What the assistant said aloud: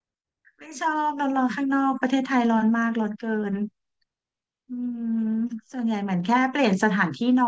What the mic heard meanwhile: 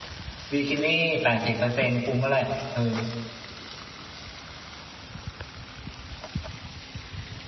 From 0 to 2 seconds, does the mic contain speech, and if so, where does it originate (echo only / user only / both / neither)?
user only